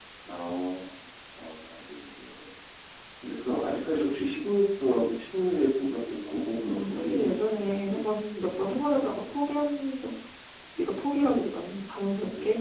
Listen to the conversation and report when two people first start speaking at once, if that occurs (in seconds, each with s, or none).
6.6 s